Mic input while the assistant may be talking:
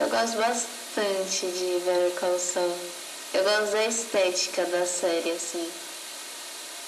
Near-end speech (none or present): none